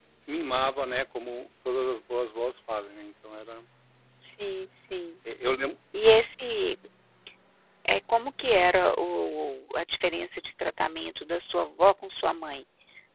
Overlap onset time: none

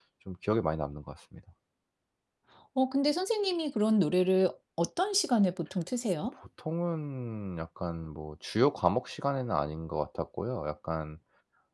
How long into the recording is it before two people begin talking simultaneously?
none

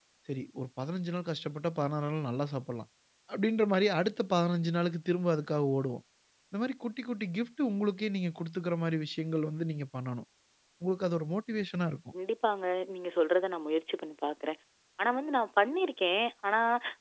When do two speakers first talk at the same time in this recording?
none

